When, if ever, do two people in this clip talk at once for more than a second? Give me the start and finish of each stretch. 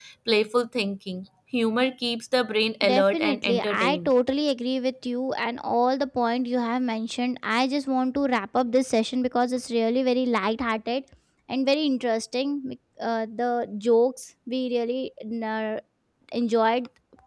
2.8-4.1

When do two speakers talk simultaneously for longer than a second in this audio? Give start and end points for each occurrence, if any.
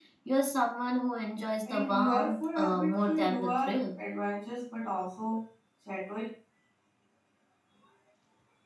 1.7-4.0

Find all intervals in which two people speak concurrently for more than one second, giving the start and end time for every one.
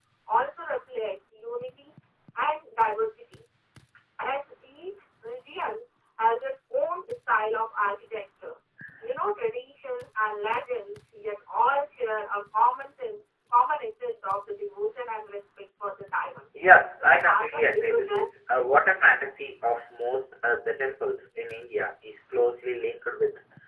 17.0-18.2

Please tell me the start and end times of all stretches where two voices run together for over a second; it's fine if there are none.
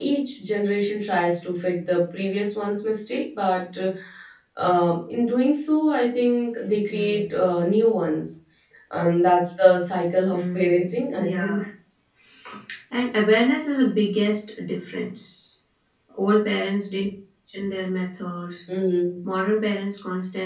10.3-11.6

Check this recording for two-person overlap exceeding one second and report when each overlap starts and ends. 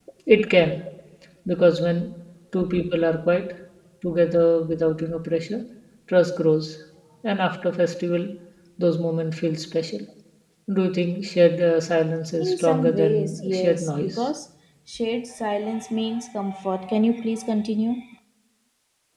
12.4-14.3

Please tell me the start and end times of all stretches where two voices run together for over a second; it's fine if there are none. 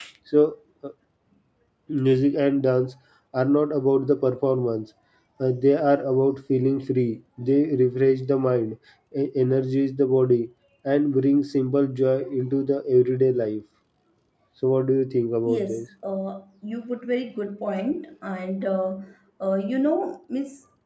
none

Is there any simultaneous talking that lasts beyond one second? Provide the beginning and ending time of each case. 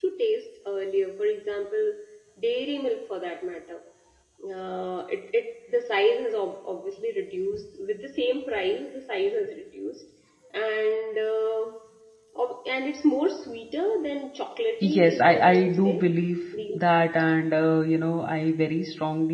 14.8-16.0

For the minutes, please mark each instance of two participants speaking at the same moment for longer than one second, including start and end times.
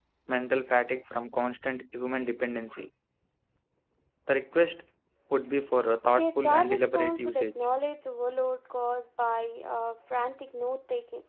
6.2-7.5

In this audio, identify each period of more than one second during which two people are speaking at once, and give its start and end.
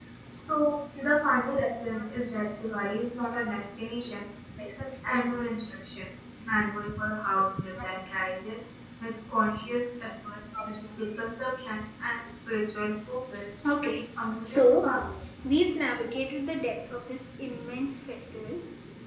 none

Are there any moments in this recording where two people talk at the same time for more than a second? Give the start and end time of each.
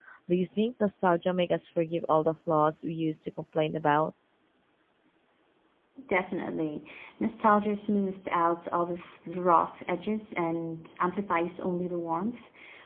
none

